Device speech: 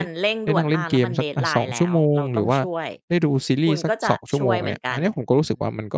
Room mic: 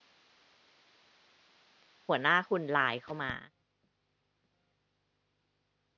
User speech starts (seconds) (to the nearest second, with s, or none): 2 s